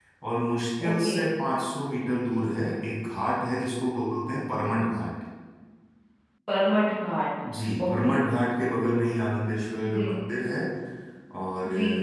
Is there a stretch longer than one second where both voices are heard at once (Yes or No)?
No